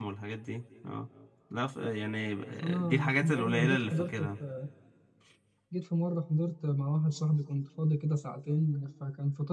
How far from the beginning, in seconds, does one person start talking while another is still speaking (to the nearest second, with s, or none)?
3 s